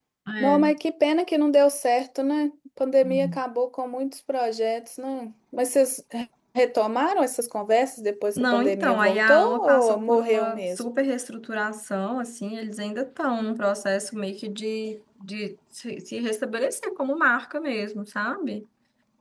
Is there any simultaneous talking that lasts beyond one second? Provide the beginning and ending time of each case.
8.4-10.8

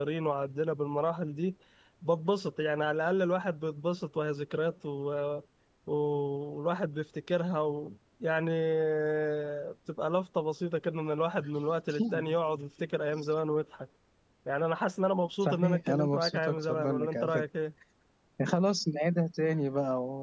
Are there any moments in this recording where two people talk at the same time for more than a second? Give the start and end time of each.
15.4-17.4

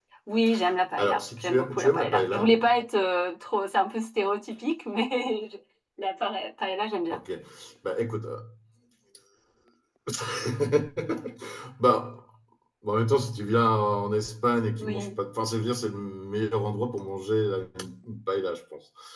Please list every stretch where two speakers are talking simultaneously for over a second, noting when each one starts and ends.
1.0-2.6

